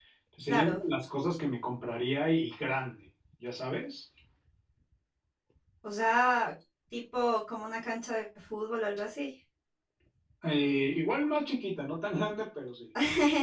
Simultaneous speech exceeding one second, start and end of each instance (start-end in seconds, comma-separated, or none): none